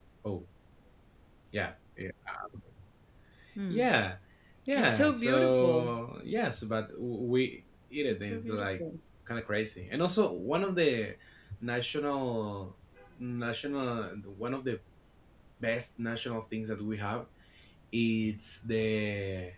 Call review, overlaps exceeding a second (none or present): present